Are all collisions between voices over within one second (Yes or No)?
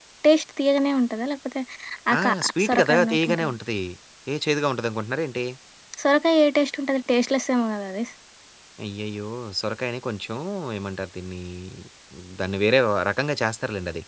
No